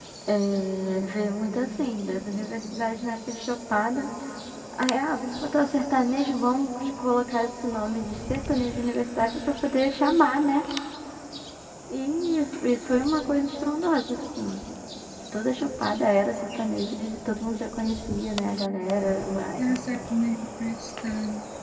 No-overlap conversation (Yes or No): Yes